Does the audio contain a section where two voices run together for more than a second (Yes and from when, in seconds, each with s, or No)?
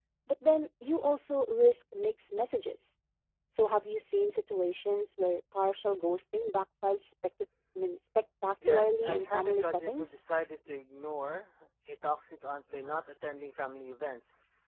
Yes, from 8.6 s